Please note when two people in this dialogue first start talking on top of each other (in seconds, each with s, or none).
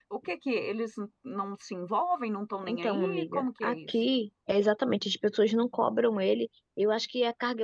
2.6 s